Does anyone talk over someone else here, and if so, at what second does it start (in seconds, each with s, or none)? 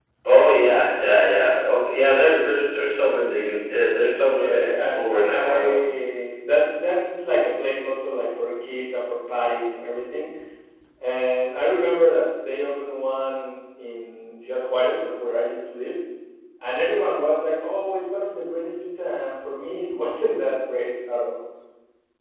4.2 s